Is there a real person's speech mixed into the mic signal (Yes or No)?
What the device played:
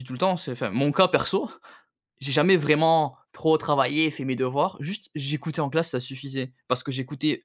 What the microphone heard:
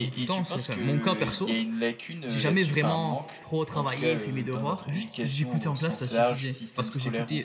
Yes